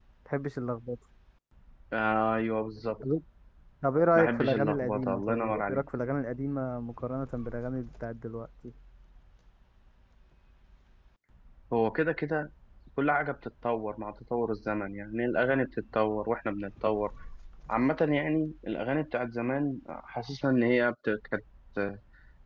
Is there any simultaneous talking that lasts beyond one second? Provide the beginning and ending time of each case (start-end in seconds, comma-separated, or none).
4.2-5.8